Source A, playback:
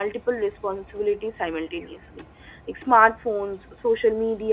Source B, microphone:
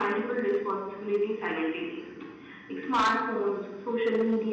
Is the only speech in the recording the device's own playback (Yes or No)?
Yes